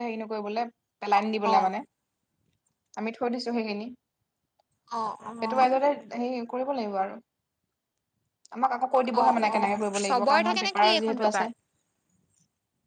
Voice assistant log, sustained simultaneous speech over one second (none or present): present